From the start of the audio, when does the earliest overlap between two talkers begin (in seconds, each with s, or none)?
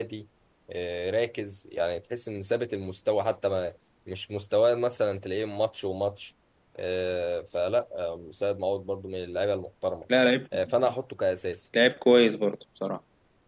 none